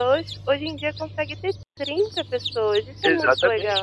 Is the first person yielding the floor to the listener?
Yes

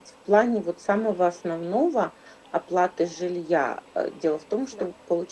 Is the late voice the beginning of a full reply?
No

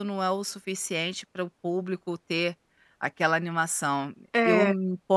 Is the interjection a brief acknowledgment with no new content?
Yes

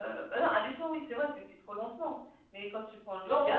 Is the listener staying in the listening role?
Yes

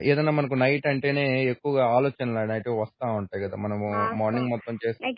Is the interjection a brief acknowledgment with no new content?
No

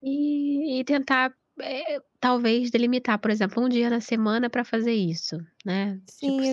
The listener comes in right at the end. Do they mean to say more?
Yes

